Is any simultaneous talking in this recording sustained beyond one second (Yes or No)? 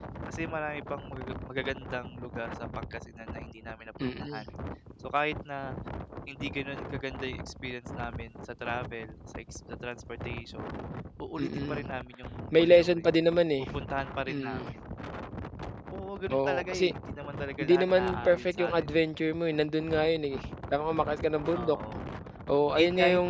Yes